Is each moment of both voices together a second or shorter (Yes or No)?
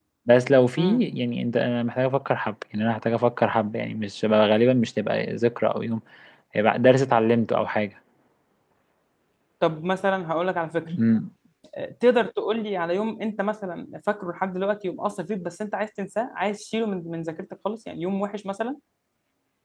Yes